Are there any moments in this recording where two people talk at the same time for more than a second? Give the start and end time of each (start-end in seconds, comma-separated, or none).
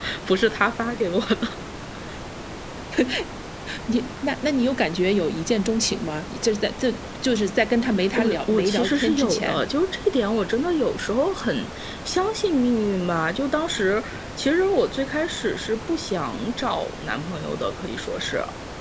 8.2-9.6